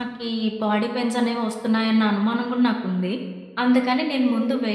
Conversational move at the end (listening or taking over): listening